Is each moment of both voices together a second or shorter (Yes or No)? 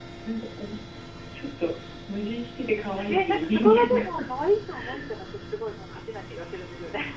No